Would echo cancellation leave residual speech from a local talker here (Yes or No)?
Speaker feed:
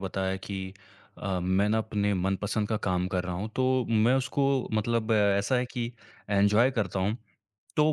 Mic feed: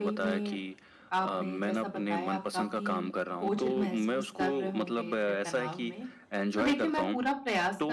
Yes